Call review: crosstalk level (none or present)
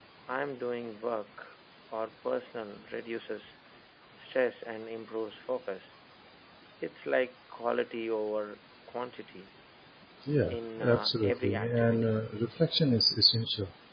present